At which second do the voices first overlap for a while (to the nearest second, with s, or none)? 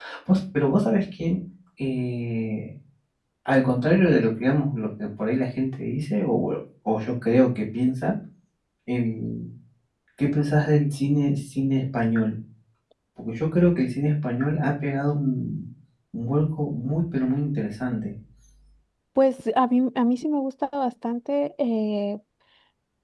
none